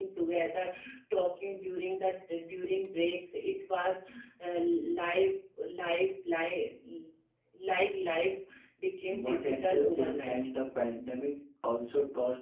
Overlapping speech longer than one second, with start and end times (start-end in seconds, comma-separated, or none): 9.0-10.4